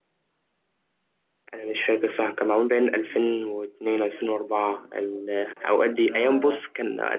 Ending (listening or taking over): listening